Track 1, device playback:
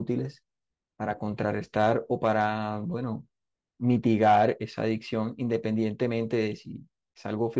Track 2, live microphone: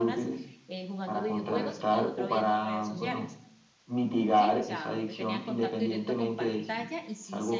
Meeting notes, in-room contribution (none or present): present